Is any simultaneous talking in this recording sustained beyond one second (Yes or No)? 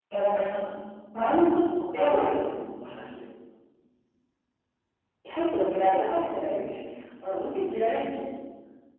No